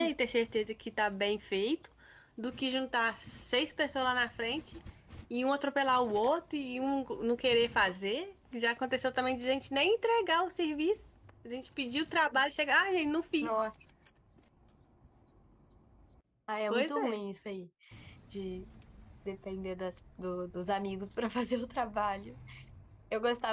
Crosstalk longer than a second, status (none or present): none